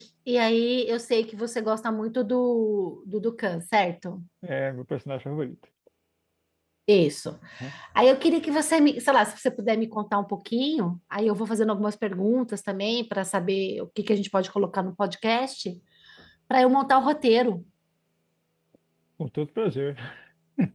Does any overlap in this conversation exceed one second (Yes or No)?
No